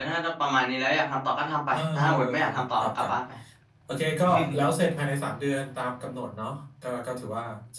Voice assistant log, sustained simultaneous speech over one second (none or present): present